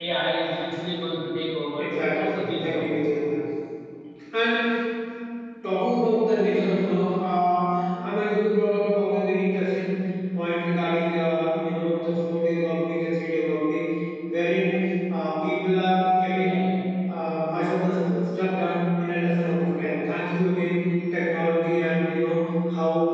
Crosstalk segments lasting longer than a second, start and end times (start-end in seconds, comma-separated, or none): 1.8-3.0